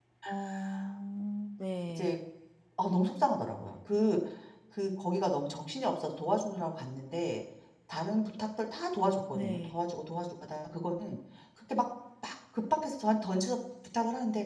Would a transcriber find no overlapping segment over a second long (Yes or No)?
Yes